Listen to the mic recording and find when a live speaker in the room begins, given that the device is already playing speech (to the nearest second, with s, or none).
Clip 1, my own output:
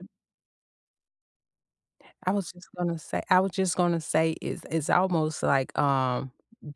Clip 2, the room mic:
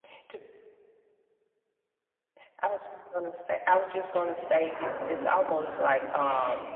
4 s